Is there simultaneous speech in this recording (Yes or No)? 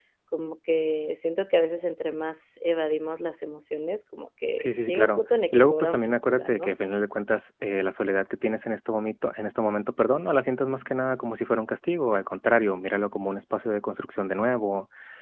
Yes